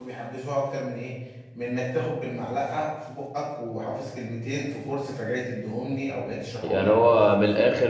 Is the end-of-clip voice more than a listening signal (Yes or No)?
Yes